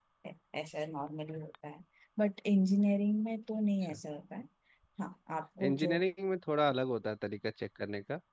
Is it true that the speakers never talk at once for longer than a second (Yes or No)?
Yes